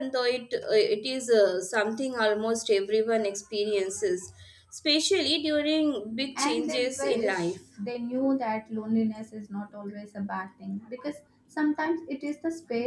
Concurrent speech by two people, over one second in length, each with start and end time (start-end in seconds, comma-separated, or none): 6.4-7.6